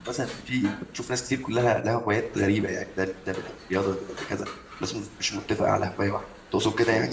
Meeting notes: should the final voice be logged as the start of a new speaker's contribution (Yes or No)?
Yes